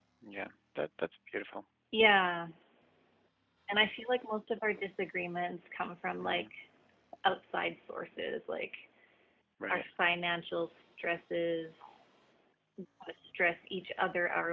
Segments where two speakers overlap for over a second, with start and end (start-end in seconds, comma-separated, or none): none